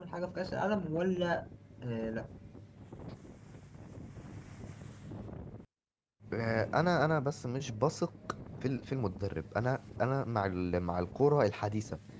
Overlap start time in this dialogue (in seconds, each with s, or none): none